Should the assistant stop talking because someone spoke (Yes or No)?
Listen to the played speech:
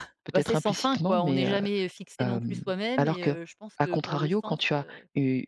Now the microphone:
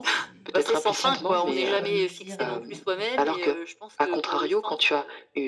Yes